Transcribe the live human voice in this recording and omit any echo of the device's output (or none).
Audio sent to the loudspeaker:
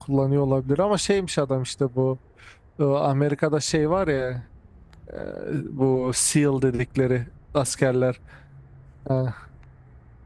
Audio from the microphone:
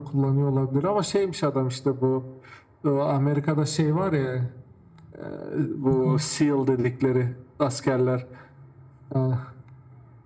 Bakalım.